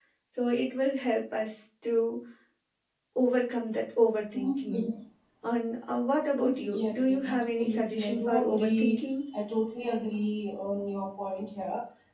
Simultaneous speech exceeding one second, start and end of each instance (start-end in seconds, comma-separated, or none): 6.6-9.0